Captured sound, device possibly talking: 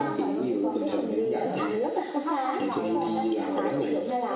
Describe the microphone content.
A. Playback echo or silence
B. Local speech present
B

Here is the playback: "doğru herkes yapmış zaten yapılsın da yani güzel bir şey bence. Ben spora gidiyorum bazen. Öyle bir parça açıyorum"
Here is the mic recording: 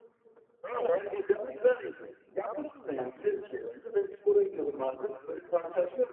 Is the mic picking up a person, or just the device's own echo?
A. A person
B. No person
B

